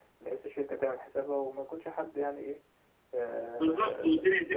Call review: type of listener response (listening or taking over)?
taking over